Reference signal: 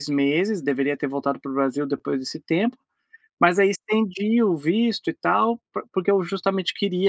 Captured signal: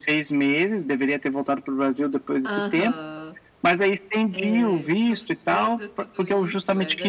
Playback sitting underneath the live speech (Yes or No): No